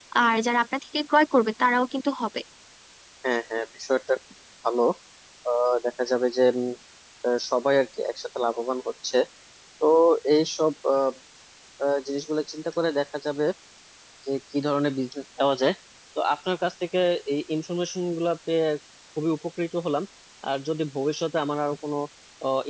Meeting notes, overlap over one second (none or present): none